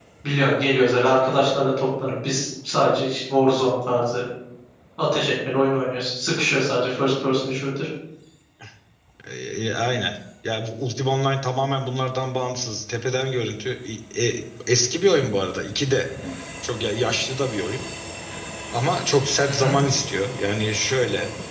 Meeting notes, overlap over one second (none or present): none